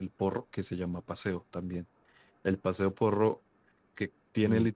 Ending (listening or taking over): listening